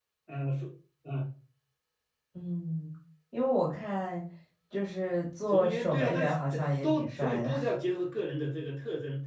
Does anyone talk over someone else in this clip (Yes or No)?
Yes